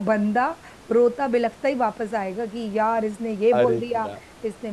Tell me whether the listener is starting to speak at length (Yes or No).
No